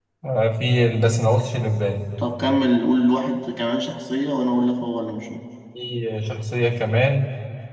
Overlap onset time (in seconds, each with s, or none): none